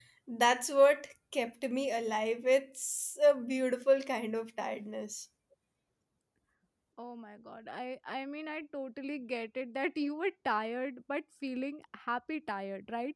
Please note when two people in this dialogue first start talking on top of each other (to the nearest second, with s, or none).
none